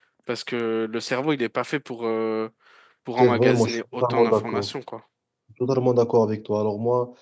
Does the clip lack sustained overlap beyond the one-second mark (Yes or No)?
No